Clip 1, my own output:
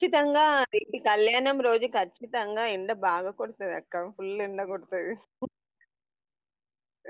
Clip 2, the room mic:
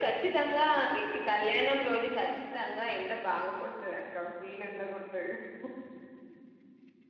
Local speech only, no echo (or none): none